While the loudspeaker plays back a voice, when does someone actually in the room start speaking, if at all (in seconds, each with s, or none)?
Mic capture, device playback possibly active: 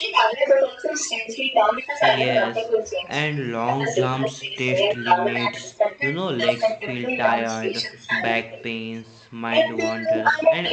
2.0 s